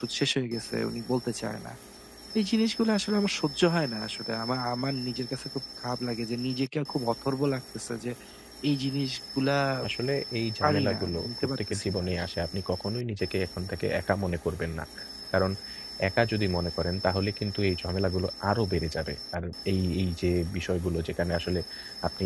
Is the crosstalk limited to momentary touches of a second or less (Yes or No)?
No